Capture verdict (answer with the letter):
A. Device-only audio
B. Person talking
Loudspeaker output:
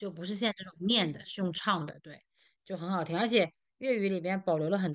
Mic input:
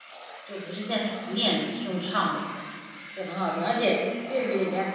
A